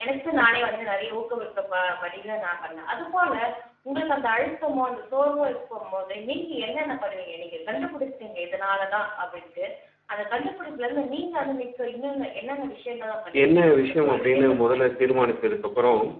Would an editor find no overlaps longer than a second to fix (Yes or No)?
No